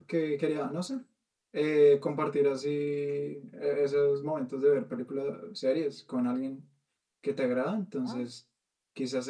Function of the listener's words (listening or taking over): listening